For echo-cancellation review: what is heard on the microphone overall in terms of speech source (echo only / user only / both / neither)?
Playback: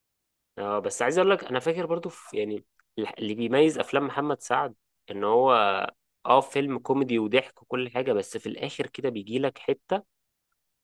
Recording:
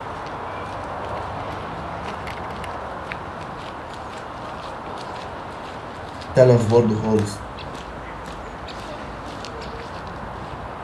user only